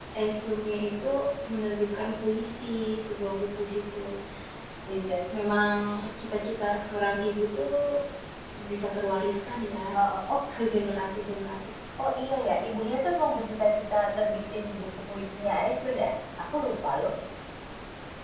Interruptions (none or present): none